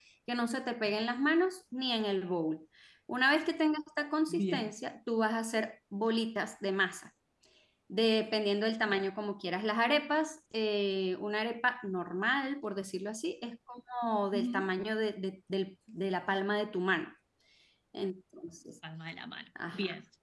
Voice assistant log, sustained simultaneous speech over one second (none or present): none